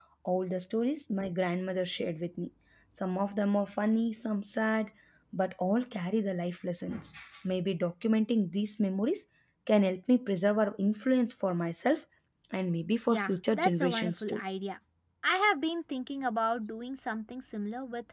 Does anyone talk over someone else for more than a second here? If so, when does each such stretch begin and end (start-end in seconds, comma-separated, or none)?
13.1-14.4